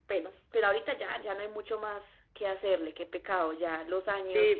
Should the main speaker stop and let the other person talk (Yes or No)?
Yes